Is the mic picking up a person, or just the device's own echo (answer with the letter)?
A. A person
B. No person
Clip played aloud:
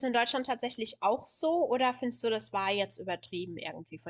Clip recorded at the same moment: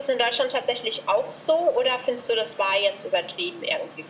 B